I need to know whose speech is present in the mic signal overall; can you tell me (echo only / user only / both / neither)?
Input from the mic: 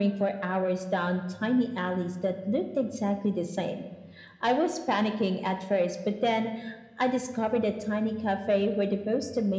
echo only